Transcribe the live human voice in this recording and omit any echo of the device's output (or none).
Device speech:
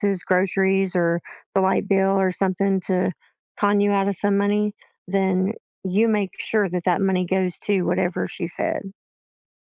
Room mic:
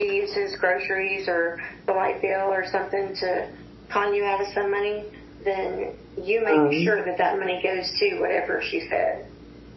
Um,